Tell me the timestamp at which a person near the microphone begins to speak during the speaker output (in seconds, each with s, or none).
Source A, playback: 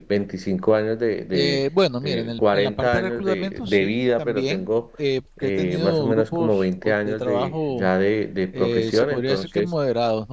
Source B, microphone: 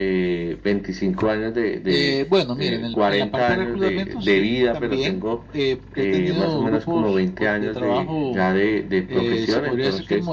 none